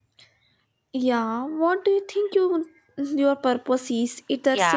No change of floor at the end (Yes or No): No